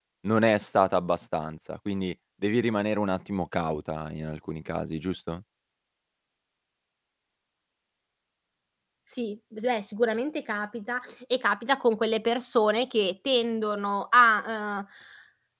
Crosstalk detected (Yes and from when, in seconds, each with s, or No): No